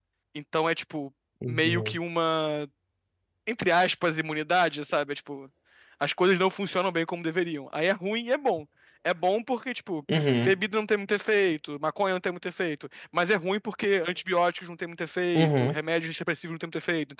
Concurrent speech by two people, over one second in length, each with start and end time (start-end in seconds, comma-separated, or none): none